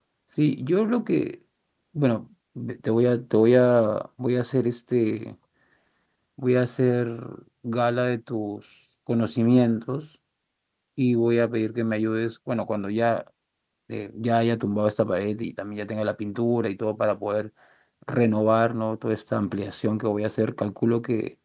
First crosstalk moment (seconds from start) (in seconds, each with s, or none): none